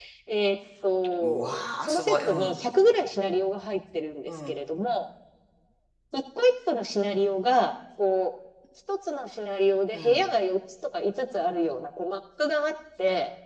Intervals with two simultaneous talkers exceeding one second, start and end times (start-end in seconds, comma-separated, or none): 1.2-2.6